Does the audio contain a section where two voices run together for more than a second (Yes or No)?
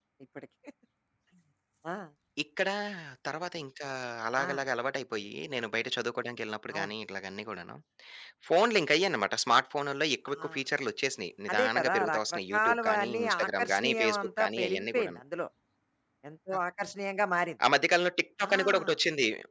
Yes